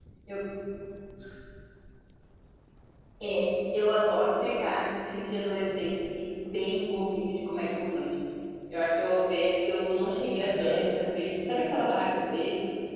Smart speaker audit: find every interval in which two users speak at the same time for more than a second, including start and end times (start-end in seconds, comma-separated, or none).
10.4-12.2